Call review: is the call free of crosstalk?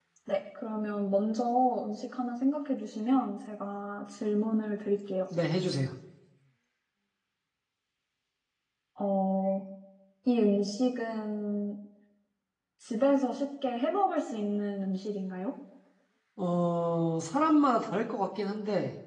Yes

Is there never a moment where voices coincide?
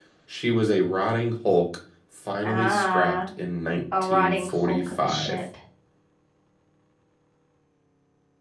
No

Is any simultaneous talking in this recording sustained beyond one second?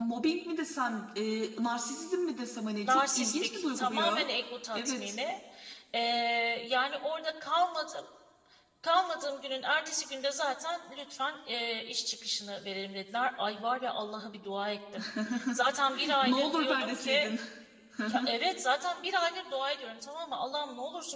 Yes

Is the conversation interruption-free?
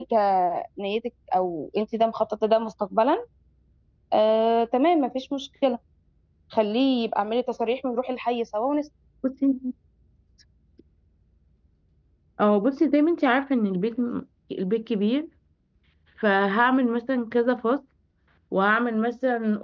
Yes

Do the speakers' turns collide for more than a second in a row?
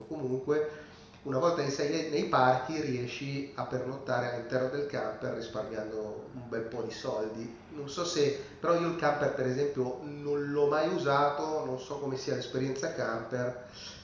No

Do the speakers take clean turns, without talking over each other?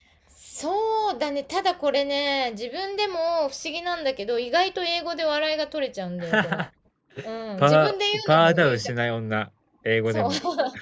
No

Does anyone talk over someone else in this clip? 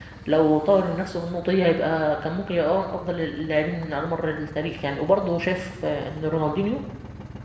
No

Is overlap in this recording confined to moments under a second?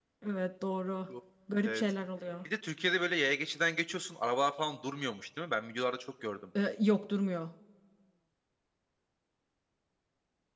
Yes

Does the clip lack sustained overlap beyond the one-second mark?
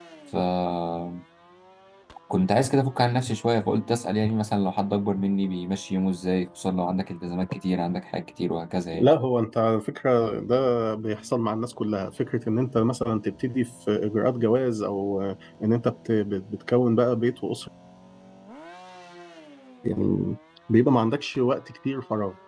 Yes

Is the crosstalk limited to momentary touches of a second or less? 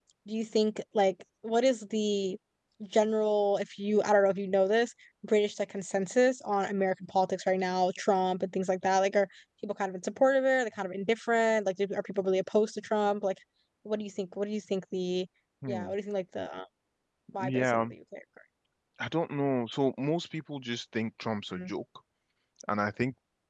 Yes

